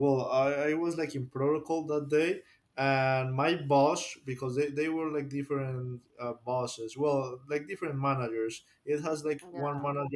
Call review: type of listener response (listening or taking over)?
listening